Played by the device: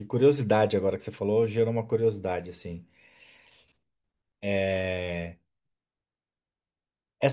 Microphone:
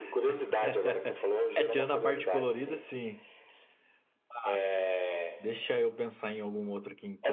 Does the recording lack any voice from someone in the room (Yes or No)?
No